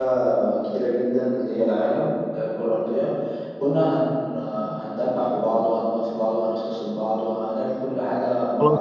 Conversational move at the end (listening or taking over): taking over